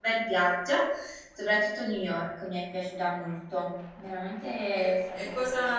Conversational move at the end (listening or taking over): taking over